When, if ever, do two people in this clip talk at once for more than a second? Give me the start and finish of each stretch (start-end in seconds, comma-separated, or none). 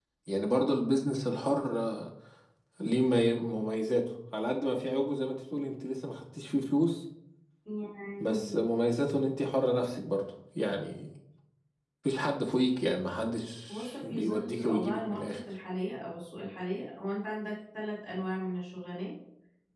13.7-15.4